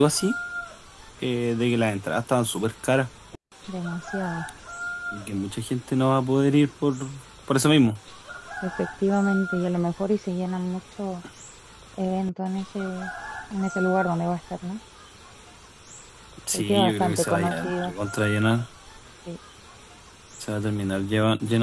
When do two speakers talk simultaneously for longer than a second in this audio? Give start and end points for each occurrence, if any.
16.5-17.9

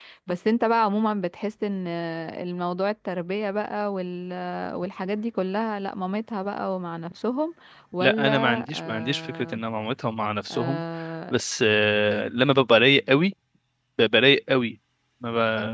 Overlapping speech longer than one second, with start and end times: 8.0-9.6

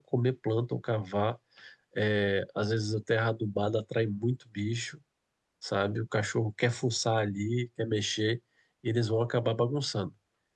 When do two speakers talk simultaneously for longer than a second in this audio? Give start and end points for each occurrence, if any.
none

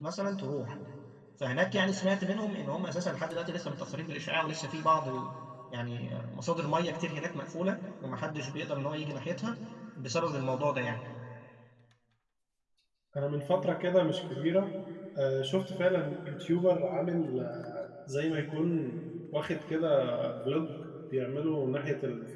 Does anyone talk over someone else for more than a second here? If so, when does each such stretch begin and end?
none

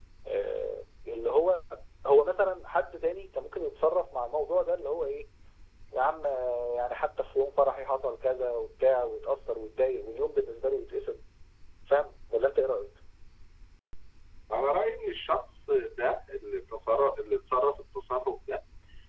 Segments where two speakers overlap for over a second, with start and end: none

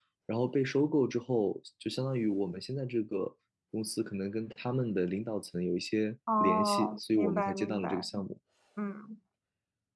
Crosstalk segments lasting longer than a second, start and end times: 6.4-8.1

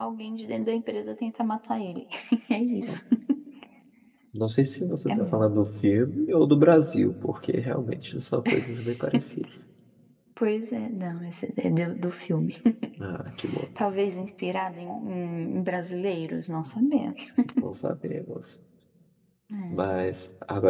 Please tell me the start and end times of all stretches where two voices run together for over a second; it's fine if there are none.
none

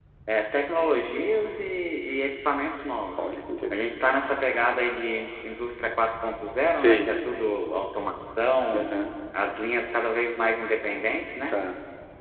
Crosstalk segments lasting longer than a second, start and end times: none

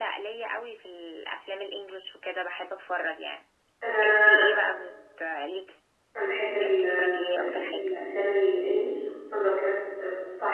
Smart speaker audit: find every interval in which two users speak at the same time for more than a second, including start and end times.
6.5-7.9

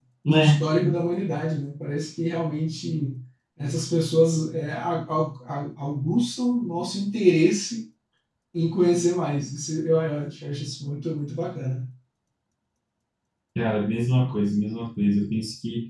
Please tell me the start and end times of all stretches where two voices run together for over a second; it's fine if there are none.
none

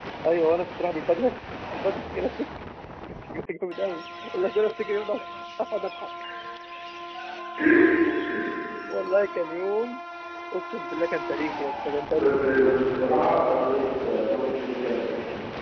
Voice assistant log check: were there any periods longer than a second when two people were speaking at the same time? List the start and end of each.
none

